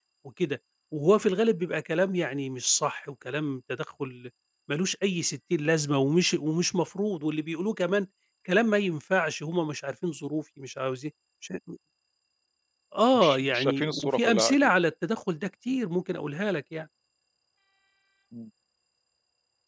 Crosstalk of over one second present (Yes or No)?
Yes